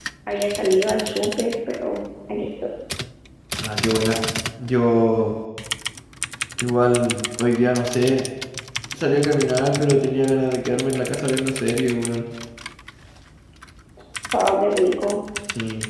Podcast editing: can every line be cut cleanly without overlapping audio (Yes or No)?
Yes